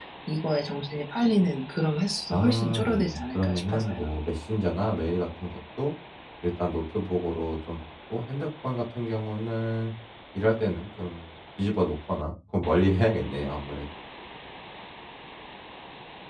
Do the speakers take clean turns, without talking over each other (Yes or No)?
No